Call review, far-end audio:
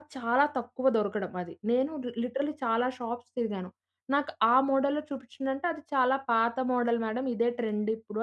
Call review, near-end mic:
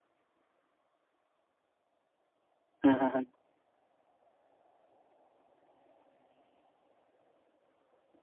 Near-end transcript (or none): హుహుహు.